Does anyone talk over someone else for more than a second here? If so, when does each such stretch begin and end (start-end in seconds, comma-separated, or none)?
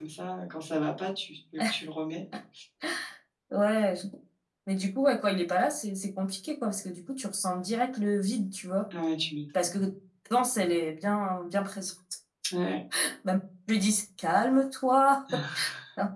none